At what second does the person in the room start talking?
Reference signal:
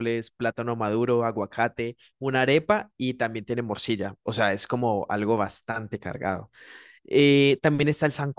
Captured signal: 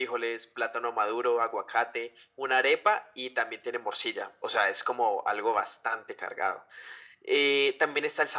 none

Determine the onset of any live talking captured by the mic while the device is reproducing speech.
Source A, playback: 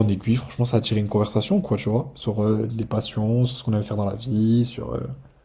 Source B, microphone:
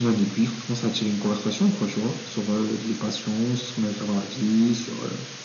none

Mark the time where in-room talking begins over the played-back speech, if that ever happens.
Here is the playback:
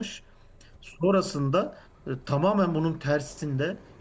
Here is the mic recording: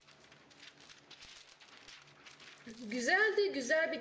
2.6 s

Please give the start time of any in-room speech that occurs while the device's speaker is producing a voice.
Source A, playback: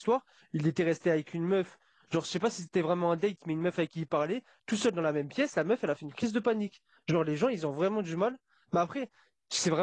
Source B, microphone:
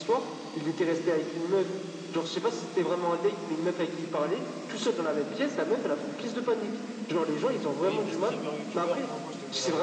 7.8 s

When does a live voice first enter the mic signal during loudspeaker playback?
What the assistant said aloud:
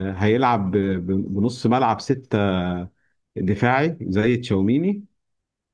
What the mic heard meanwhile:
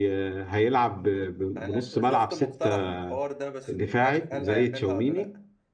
1.6 s

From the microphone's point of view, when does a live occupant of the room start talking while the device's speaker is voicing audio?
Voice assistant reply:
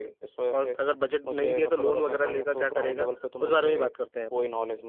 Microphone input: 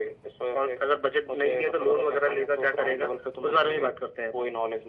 none

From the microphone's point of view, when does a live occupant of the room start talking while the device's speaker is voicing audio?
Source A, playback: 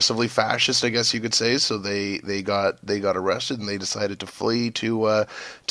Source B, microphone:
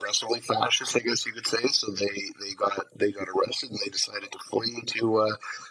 none

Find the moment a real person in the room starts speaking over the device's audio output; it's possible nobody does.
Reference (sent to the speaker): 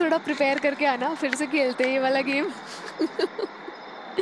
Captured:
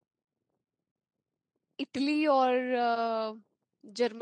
1.8 s

